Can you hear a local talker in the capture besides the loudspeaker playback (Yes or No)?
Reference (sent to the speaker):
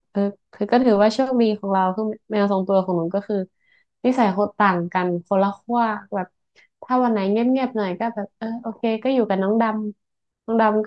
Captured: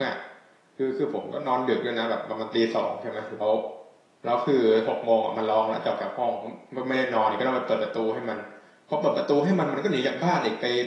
Yes